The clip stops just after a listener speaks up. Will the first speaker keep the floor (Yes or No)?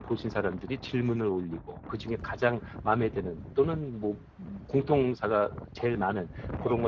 Yes